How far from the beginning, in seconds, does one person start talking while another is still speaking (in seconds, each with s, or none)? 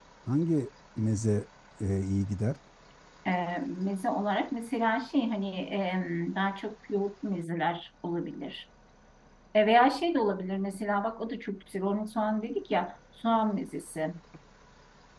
none